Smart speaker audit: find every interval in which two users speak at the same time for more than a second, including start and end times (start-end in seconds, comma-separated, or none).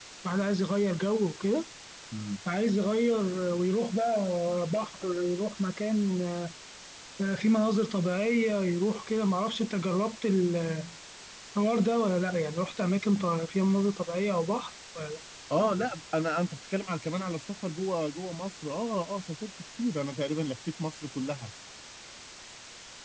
none